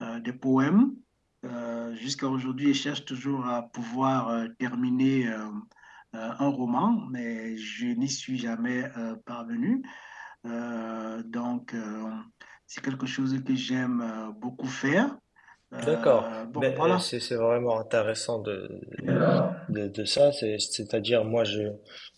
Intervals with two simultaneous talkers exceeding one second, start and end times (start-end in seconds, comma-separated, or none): 15.8-17.1